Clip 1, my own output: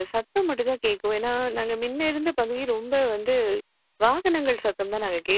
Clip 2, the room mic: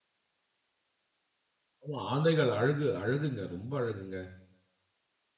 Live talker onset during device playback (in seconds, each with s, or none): 1.8 s